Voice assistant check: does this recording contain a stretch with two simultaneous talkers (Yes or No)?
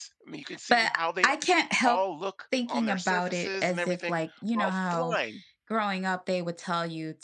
Yes